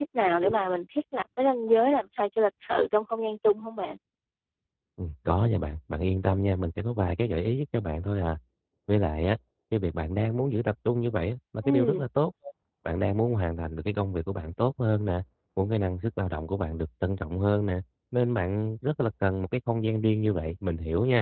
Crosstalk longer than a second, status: none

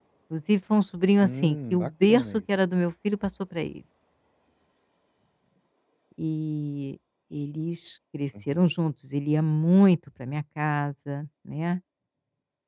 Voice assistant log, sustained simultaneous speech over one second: present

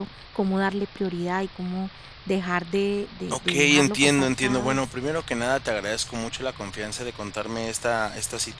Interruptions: present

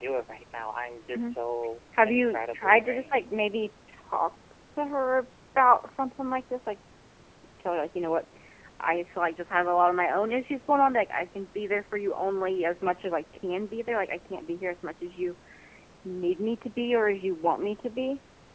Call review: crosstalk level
present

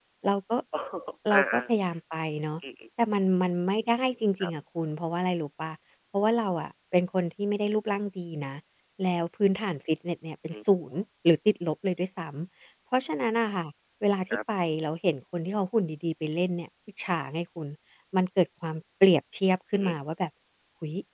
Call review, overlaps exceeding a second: none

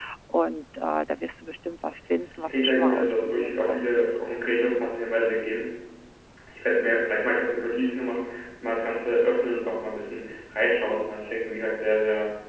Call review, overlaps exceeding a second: present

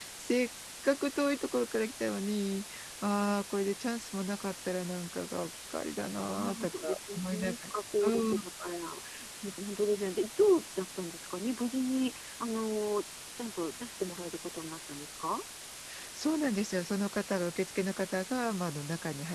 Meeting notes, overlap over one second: present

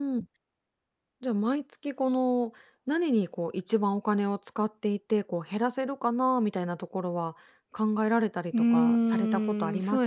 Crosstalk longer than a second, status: present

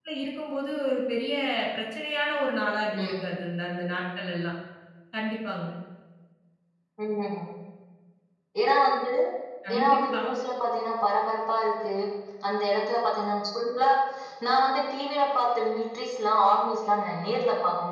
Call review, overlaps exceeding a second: none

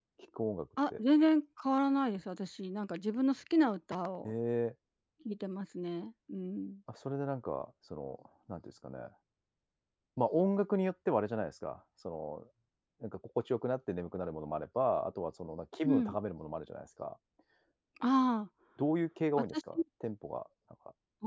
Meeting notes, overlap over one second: none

